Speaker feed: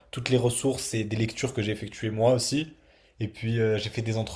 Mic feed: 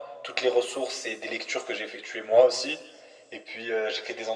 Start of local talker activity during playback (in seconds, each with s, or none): none